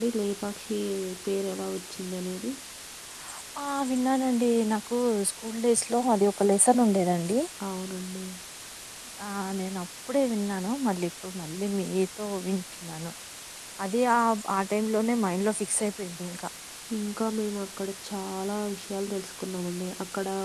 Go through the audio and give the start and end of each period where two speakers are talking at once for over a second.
none

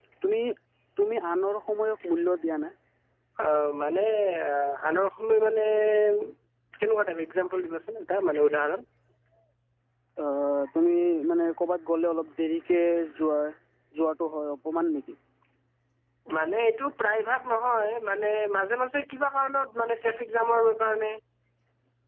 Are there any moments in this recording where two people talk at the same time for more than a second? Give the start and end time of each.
none

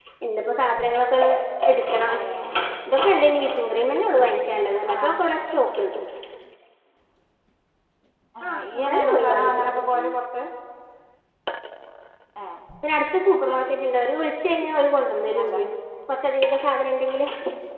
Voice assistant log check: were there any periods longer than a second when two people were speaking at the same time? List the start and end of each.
8.5-9.7

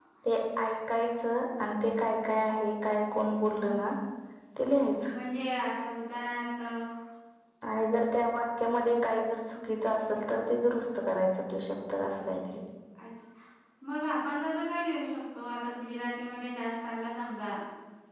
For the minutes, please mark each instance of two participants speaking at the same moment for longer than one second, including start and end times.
none

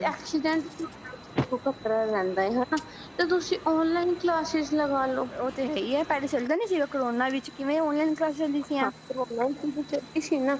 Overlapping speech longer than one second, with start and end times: none

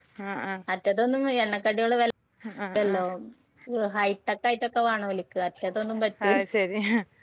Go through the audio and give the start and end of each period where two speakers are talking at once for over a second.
none

